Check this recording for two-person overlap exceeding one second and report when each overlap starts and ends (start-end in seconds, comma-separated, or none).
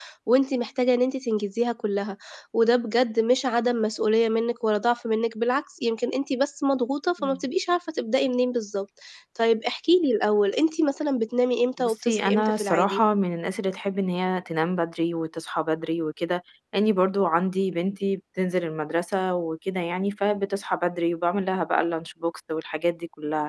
11.8-13.0